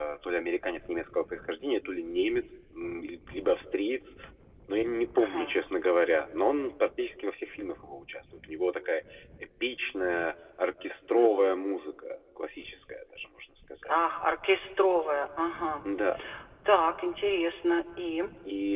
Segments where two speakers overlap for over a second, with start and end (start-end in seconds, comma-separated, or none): none